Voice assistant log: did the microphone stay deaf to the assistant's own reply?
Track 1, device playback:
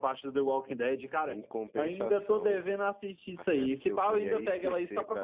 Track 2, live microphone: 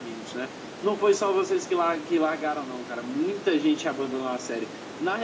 Yes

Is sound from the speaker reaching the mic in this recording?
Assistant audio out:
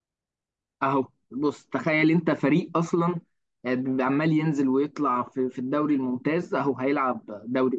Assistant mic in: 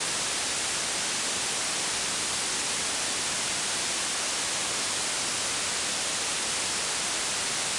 No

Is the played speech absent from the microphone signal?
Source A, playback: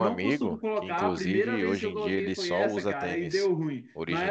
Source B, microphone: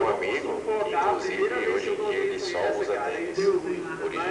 No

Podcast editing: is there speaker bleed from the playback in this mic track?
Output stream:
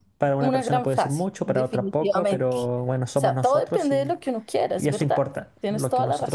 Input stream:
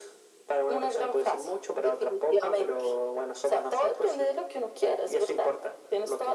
Yes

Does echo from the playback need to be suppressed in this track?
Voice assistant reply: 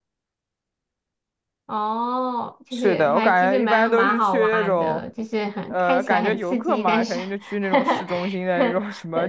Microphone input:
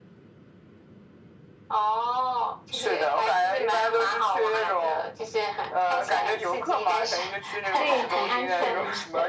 Yes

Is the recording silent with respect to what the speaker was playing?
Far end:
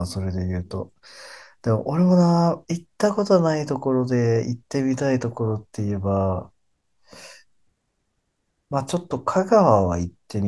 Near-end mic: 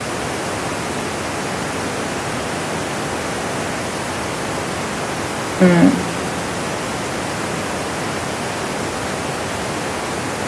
Yes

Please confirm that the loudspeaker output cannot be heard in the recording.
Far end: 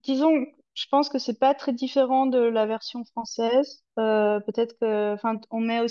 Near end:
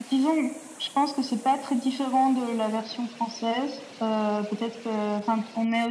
No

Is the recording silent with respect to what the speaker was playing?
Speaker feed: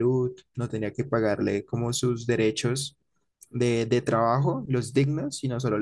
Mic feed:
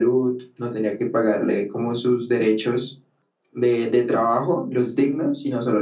No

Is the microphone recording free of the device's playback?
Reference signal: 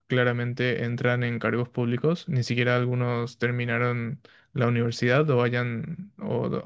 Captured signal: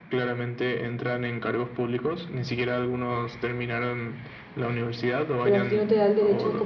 No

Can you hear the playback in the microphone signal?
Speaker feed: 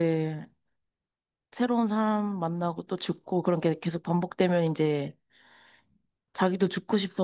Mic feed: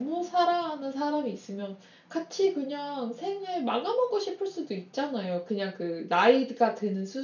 No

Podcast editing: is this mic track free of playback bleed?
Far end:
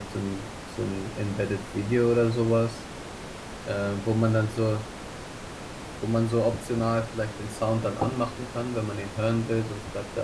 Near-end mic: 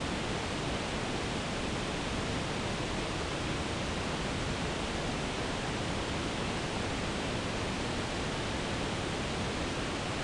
Yes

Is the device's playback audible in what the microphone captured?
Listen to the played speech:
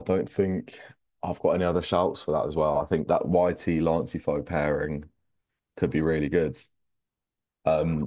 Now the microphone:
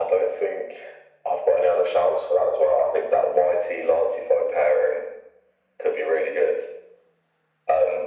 Yes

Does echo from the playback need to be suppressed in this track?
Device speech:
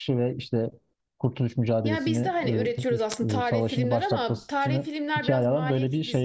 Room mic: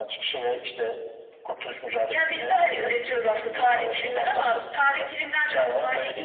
Yes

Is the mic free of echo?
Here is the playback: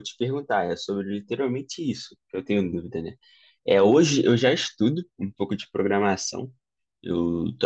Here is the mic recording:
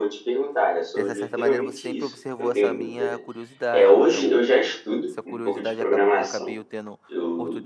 No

